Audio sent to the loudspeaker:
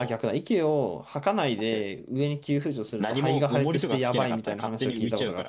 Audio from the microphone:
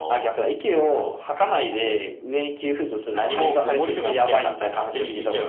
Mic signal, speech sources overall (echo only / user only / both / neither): echo only